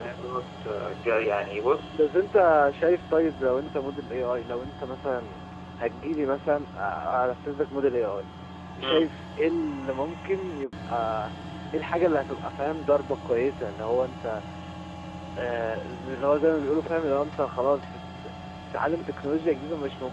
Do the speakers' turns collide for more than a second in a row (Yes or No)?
No